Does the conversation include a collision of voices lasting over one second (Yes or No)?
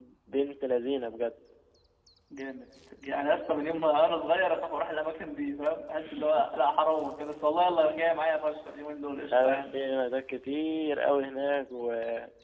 No